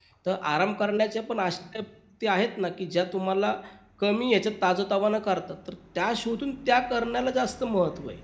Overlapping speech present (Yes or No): No